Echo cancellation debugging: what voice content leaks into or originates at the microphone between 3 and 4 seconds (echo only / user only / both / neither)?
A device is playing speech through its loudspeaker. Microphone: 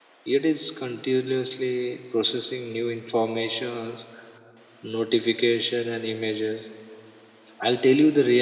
user only